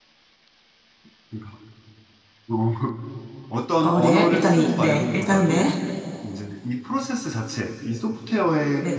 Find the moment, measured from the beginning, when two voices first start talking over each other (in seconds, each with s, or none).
3.8 s